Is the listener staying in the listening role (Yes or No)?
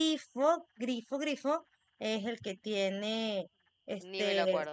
No